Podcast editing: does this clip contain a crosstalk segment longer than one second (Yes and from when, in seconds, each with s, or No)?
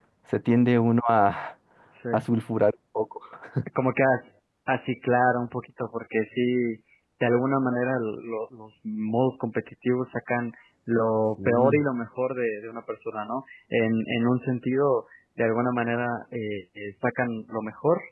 No